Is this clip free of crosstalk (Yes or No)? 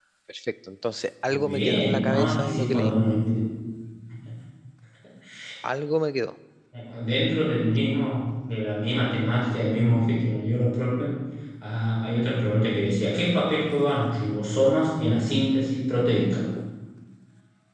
No